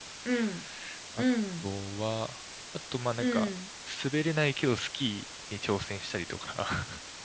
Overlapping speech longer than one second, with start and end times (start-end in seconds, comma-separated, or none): none